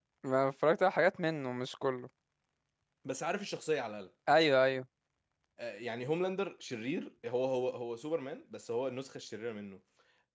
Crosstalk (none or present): none